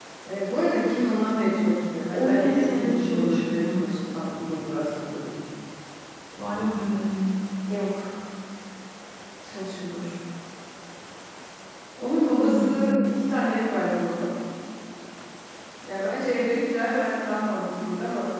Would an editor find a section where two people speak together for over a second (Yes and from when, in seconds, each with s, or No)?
Yes, from 2.1 s